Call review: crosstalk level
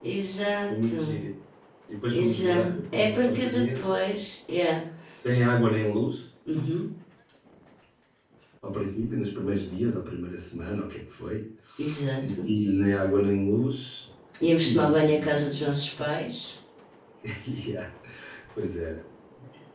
present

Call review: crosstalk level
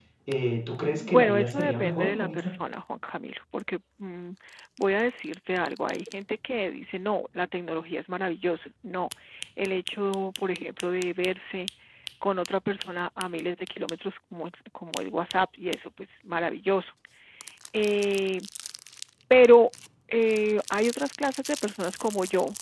present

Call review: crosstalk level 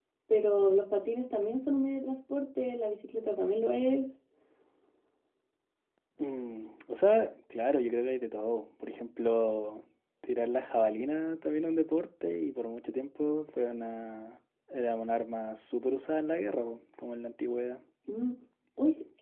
none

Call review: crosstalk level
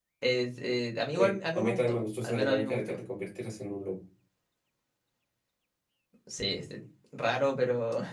present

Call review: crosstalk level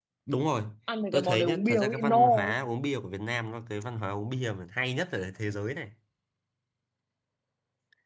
present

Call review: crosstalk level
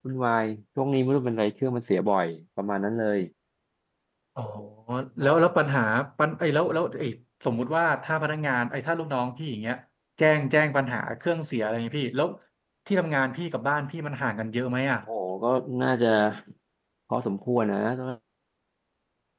none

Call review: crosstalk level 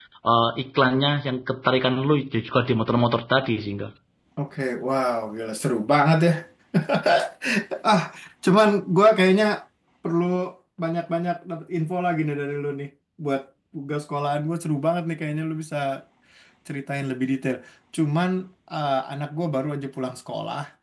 none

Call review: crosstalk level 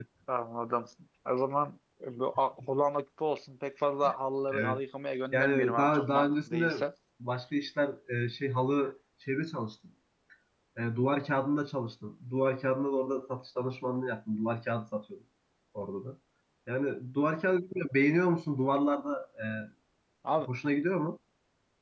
present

